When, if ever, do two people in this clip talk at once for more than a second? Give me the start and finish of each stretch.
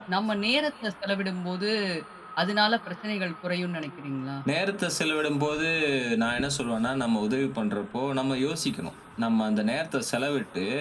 none

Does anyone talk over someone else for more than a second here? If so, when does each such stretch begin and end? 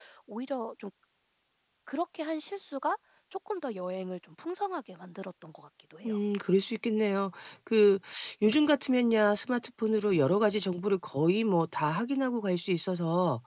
none

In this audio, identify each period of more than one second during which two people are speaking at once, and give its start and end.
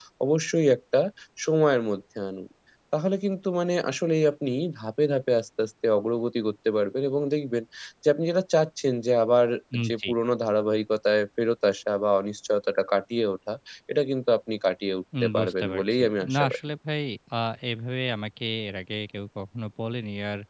15.2-16.6

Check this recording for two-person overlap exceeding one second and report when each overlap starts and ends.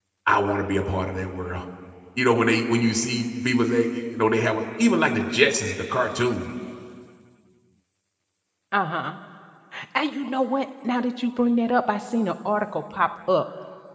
none

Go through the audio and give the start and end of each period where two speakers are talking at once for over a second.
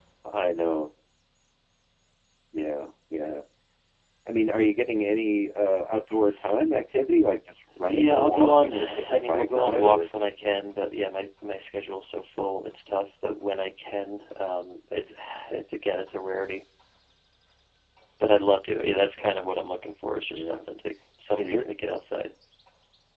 7.9-10.1

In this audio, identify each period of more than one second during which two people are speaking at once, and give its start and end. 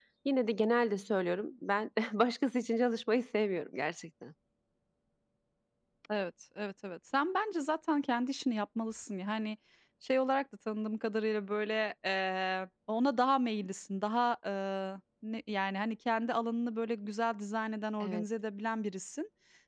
none

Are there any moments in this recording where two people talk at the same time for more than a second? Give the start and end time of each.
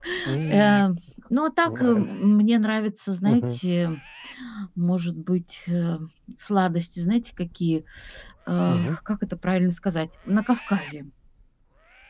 none

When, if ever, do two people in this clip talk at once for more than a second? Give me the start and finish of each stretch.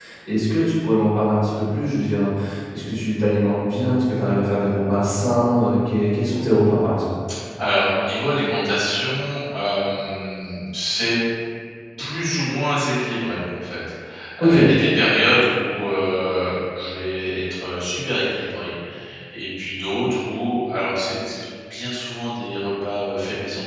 none

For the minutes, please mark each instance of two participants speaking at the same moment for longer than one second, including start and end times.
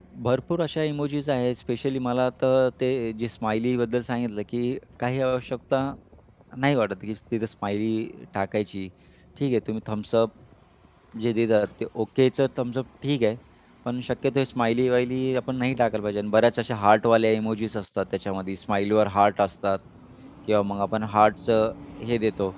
none

